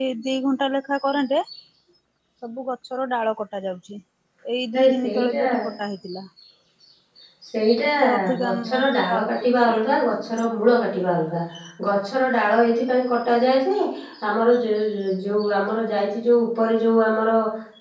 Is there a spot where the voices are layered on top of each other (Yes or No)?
Yes